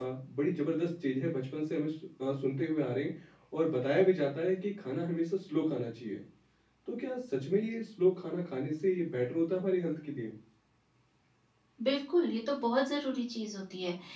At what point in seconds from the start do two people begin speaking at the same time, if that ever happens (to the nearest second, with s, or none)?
none